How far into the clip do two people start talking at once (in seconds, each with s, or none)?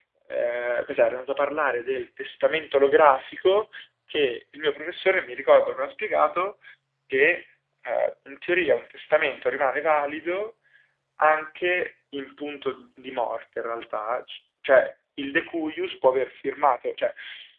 none